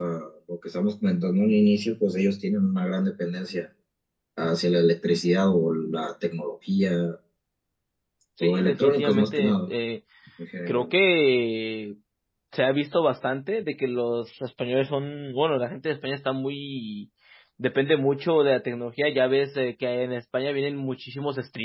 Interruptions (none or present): present